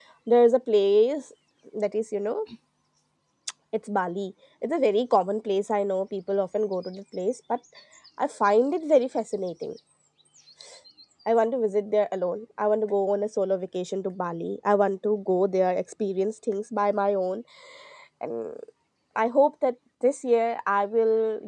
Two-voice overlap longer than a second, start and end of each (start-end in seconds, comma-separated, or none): none